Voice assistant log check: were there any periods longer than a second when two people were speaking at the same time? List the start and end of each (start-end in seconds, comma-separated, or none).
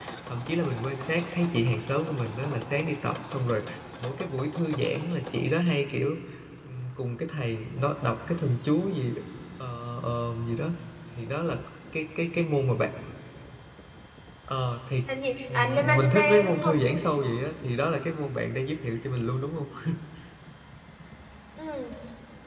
15.5-16.8